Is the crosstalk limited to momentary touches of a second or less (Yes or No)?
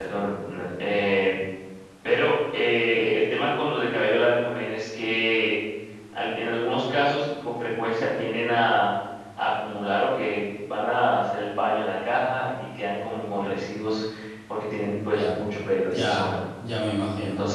Yes